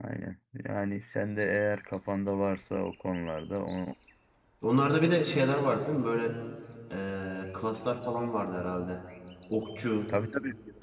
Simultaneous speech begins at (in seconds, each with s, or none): none